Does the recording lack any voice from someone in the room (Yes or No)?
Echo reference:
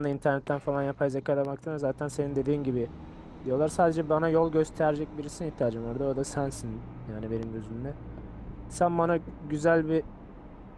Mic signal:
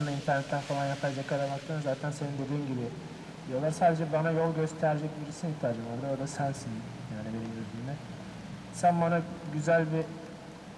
Yes